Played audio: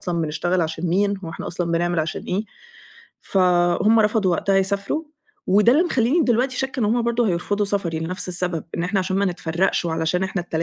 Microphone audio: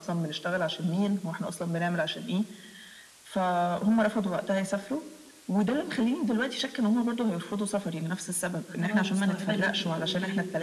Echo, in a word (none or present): present